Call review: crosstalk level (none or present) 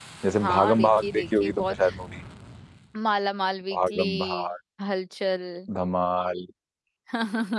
present